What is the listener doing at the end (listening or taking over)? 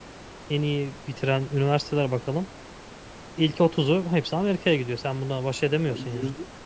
taking over